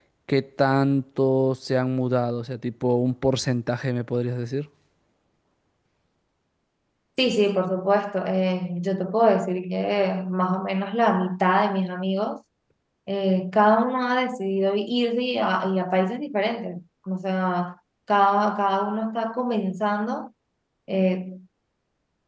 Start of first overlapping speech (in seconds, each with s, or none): none